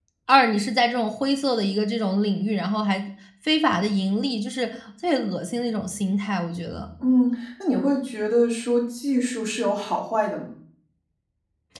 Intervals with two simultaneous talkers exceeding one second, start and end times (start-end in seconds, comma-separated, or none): none